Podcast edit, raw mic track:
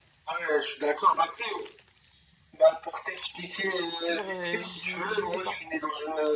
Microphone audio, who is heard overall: both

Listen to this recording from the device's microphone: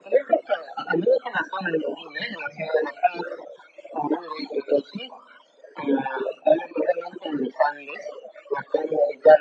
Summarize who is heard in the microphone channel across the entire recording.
echo only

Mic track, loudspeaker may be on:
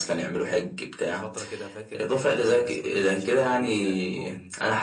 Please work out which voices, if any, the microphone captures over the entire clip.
both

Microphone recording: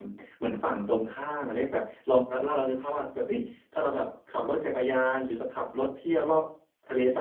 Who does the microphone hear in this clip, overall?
user only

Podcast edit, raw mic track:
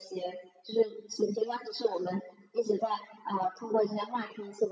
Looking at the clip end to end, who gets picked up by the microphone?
echo only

